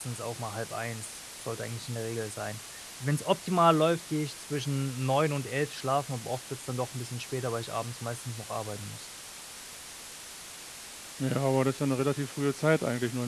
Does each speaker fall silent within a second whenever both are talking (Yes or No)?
Yes